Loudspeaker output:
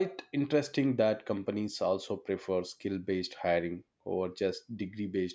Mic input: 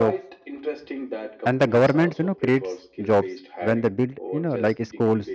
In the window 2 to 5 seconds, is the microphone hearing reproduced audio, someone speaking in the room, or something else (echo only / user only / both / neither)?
both